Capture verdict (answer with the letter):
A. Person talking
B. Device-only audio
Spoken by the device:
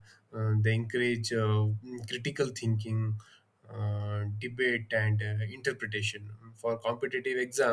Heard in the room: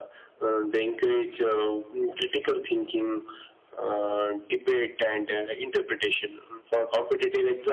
B